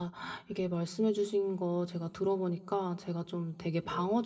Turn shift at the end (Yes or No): No